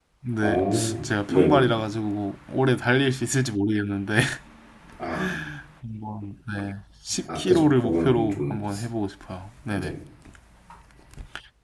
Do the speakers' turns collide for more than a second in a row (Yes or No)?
Yes